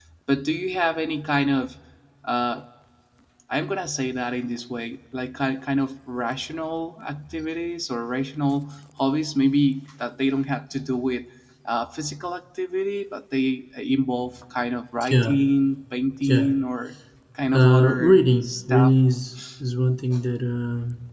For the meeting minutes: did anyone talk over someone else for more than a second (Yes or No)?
Yes